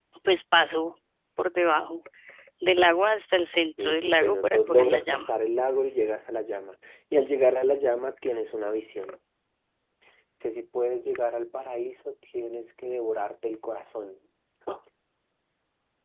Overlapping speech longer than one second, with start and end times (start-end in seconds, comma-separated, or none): 3.8-5.3